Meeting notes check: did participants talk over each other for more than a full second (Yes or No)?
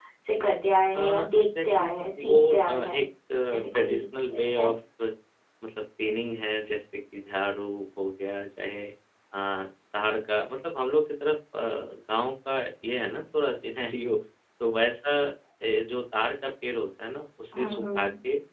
Yes